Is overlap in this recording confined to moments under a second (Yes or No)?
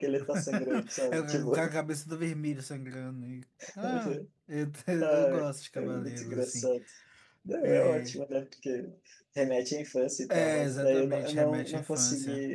No